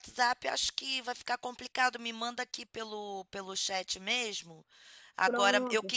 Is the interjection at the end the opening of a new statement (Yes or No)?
No